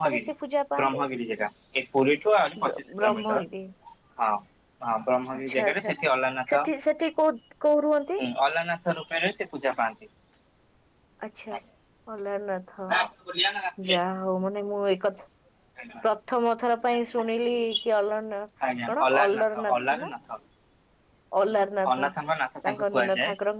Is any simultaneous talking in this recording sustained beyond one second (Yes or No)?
Yes